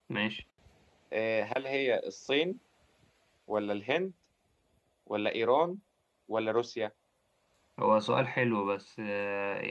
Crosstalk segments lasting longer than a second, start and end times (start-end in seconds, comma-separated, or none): none